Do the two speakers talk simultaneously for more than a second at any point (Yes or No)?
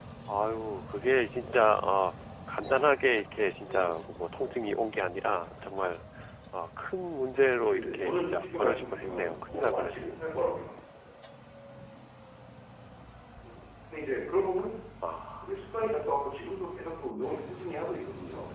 Yes